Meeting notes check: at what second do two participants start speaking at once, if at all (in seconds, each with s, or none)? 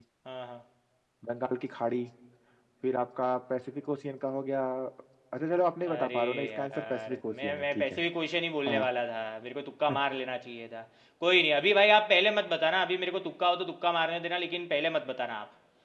5.9 s